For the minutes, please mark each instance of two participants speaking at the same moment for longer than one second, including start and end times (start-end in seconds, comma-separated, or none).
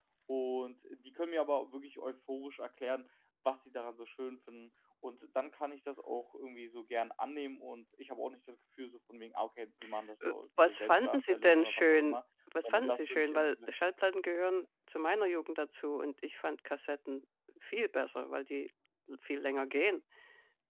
10.2-12.2, 12.6-13.8